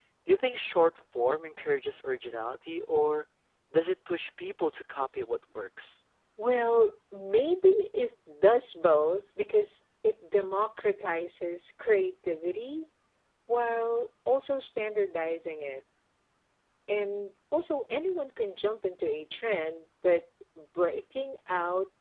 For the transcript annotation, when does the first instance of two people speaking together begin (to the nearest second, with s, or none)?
none